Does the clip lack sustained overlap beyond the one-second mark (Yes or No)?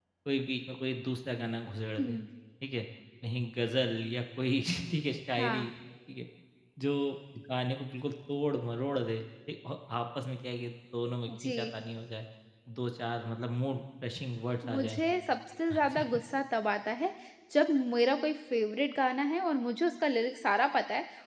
Yes